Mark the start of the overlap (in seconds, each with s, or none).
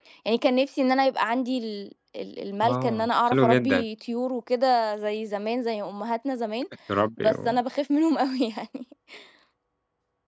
2.6 s